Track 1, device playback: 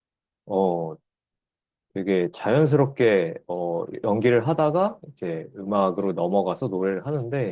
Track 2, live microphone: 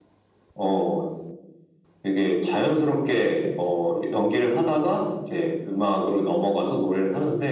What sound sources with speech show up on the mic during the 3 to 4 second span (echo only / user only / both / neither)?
echo only